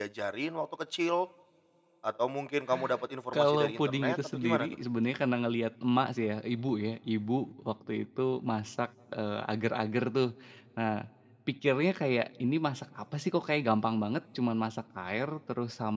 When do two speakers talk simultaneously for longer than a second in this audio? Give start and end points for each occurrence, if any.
3.3-4.8

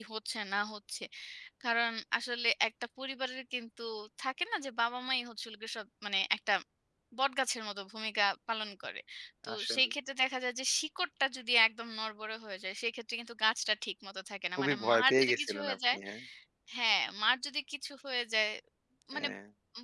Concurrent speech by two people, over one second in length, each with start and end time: 14.6-16.0

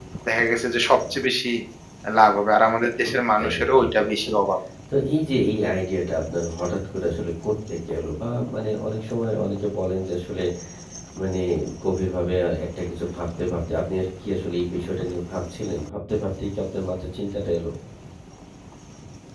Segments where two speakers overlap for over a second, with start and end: 3.0-4.3

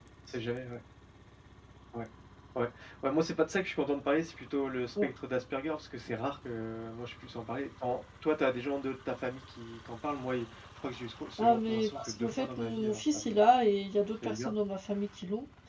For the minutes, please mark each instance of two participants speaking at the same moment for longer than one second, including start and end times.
11.4-13.4

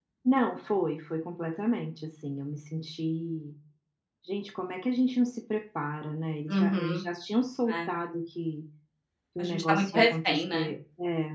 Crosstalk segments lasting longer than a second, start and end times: 9.4-10.7

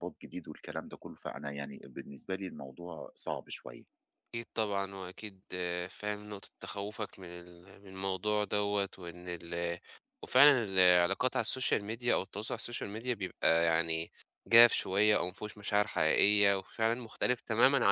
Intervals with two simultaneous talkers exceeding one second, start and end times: none

